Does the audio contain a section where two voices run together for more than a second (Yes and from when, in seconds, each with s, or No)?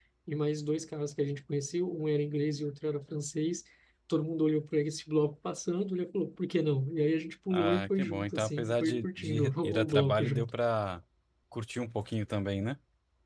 Yes, from 7.5 s